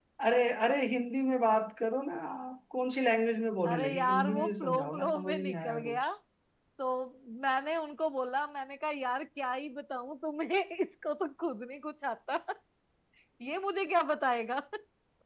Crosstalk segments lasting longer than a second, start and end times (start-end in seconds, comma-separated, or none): 3.7-6.1